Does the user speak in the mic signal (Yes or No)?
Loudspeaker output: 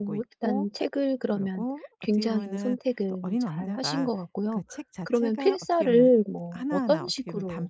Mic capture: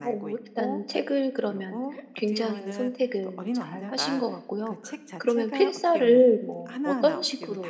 No